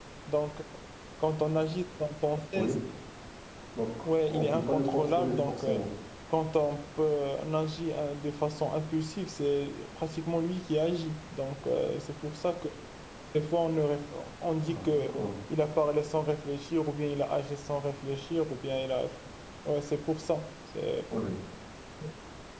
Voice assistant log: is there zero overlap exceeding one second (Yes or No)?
No